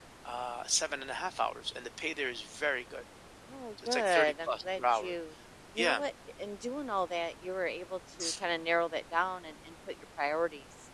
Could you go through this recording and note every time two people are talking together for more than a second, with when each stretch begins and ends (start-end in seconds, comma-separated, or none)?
3.9-5.1